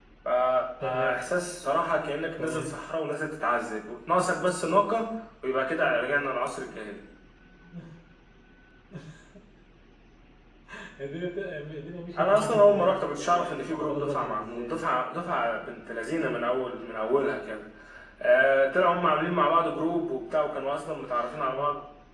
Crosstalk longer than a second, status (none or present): present